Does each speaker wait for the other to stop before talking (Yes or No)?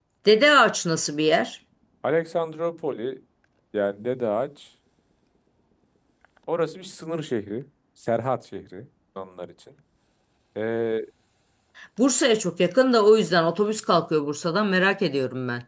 Yes